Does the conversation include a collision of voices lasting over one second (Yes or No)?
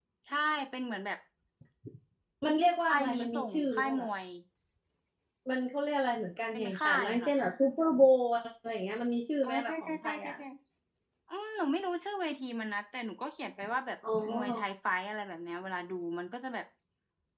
Yes